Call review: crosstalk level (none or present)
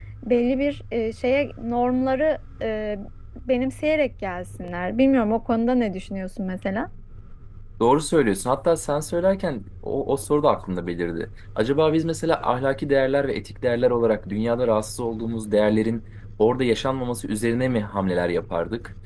none